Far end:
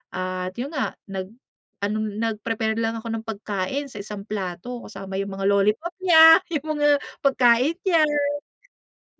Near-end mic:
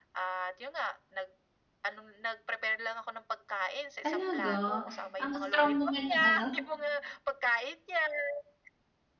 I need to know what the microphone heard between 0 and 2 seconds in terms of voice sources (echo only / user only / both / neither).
echo only